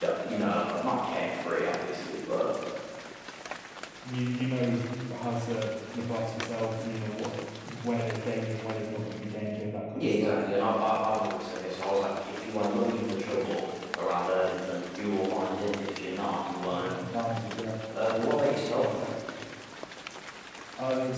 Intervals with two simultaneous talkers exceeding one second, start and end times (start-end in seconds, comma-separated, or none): none